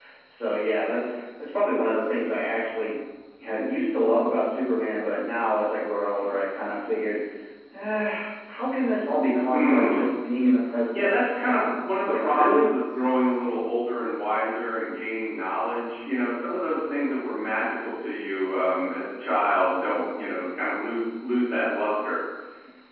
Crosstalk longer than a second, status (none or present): present